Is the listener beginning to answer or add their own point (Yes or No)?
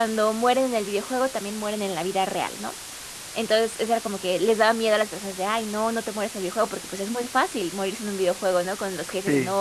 No